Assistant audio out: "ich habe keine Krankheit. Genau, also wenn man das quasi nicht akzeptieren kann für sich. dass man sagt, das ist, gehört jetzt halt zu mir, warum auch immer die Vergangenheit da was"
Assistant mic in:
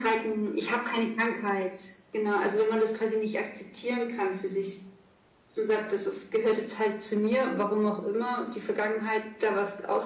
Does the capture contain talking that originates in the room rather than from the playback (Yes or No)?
No